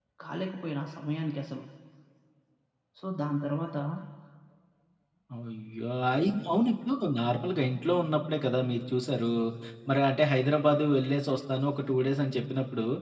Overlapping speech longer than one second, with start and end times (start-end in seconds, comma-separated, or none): none